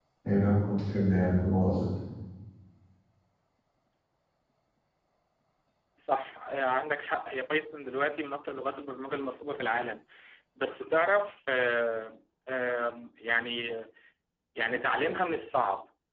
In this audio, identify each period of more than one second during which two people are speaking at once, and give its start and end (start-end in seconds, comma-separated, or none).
none